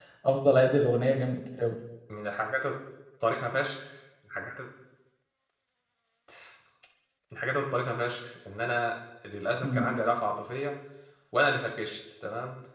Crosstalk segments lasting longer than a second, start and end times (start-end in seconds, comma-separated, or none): none